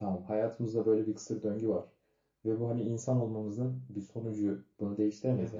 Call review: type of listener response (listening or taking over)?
listening